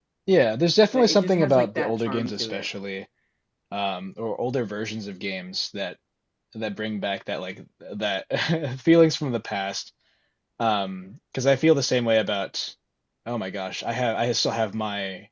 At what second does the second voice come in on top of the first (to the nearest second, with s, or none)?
1 s